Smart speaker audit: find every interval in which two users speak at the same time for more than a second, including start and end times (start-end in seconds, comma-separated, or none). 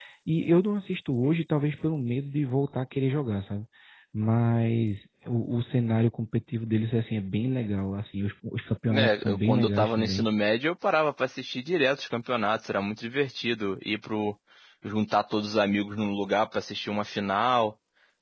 8.9-10.2